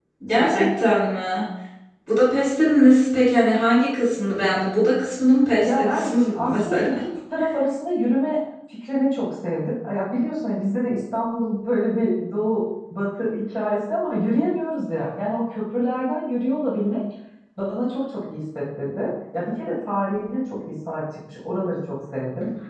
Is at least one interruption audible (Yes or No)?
Yes